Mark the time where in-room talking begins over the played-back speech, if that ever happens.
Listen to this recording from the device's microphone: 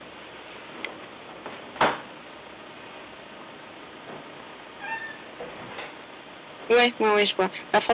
6.7 s

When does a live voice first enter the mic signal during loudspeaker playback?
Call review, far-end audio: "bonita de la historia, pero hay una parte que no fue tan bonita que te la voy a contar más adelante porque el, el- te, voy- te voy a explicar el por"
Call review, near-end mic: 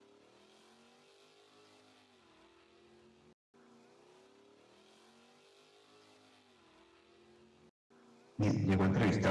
8.4 s

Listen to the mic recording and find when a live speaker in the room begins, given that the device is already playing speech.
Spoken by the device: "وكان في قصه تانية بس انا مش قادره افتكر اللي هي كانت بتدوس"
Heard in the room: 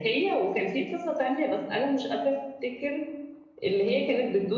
none

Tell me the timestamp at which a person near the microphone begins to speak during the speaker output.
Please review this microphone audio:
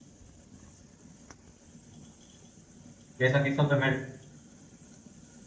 3.2 s

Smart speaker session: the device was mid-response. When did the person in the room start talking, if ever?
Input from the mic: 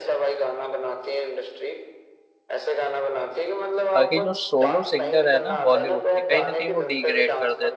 3.9 s

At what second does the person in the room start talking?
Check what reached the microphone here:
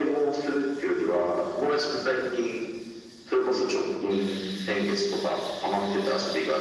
none

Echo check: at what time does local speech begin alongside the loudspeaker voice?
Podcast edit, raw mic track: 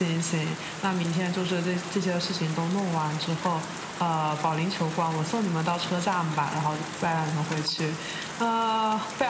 none

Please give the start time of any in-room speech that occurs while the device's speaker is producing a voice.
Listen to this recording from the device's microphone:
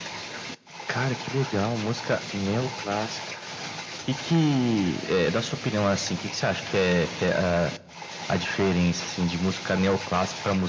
none

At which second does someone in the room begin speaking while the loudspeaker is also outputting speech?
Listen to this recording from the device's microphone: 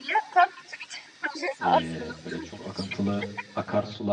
1.6 s

